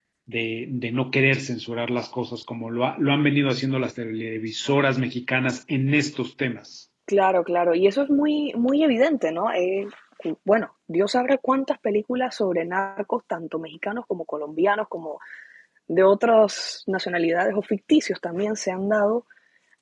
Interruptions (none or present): none